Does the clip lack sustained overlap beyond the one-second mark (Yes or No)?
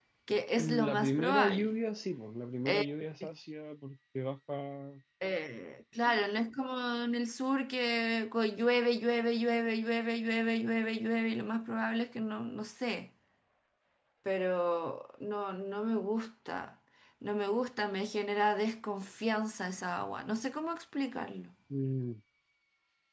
No